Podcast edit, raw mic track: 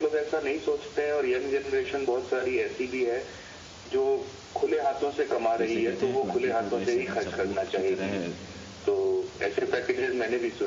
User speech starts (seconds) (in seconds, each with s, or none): 5.6 s